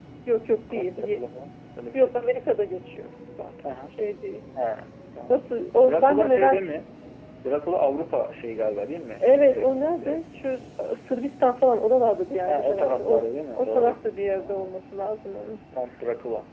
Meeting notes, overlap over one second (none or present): present